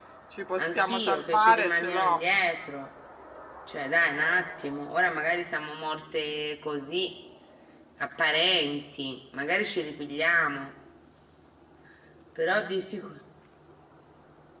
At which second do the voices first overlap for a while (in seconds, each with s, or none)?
0.6 s